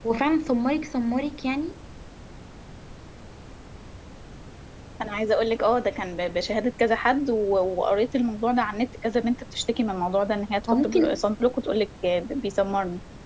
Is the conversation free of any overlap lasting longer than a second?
Yes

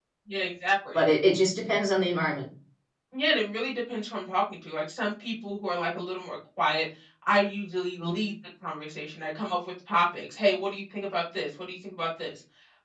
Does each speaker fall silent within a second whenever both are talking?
Yes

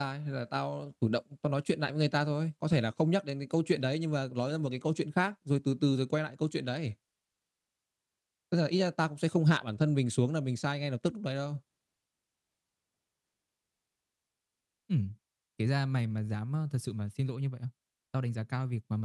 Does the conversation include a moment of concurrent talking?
No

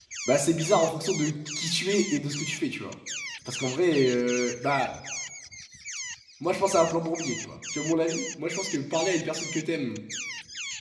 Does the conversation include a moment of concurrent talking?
No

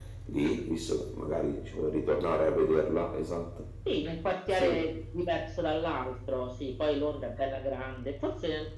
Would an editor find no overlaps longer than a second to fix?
Yes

